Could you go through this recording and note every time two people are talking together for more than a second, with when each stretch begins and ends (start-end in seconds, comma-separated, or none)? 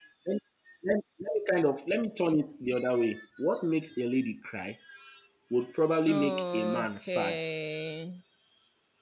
6.1-7.4